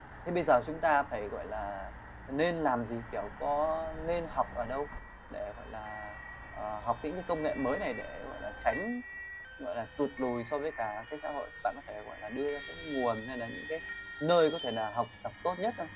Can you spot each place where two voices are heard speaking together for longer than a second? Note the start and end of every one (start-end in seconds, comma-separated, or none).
none